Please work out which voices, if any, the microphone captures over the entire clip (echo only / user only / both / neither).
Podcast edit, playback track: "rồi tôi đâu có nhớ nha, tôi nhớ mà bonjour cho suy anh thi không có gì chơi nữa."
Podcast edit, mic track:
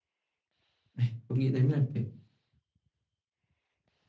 user only